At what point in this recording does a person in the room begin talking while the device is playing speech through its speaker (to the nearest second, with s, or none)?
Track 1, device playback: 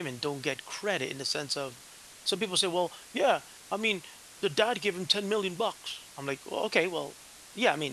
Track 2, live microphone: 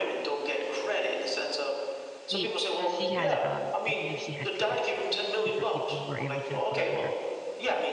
2 s